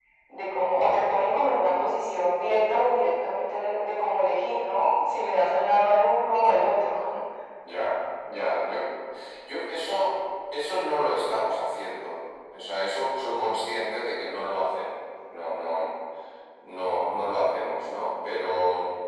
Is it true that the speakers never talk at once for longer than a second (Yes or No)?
Yes